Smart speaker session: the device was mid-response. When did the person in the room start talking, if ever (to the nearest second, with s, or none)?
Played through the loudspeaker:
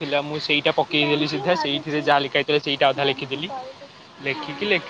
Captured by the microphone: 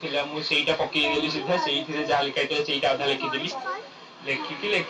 3 s